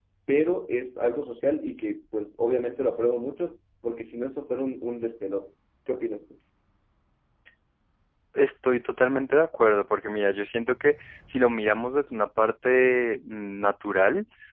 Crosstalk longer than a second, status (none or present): none